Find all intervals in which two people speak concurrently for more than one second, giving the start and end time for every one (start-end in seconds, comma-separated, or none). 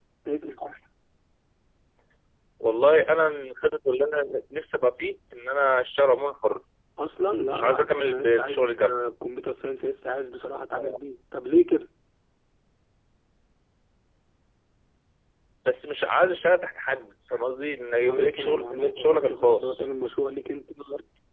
7.5-9.0, 18.1-19.9